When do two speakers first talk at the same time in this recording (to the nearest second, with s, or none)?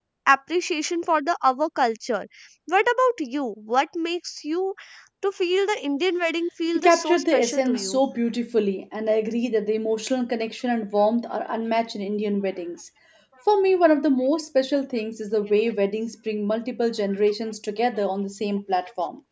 7 s